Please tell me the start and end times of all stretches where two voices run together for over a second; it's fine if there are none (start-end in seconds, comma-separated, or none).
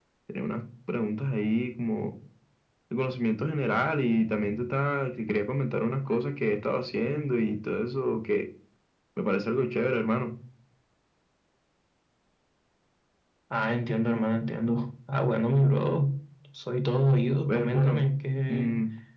none